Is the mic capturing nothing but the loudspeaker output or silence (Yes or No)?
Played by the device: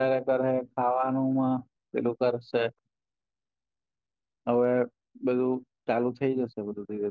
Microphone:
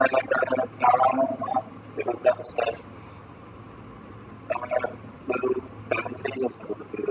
Yes